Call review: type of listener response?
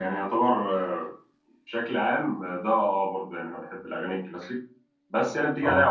listening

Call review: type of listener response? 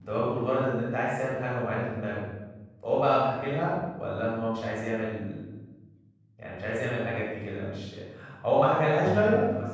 listening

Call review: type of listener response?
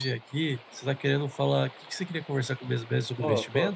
taking over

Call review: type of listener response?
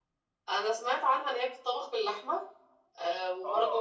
taking over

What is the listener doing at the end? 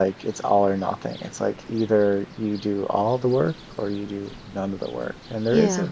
listening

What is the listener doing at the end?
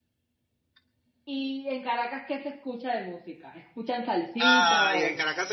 taking over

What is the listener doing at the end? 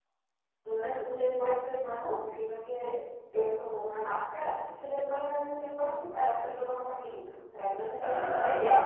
taking over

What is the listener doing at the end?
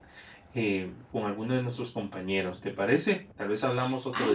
taking over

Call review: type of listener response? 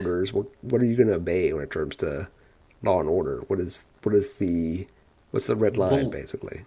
taking over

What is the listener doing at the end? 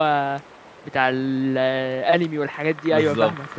taking over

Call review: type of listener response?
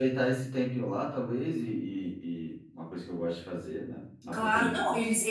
taking over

